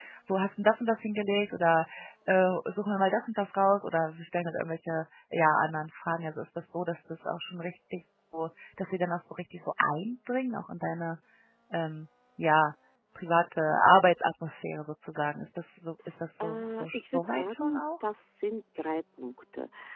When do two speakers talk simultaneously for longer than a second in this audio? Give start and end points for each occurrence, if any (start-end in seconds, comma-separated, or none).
16.4-17.8